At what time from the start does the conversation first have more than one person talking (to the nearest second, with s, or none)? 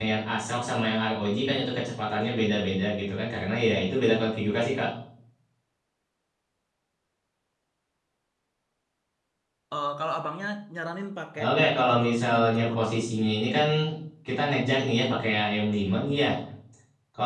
11 s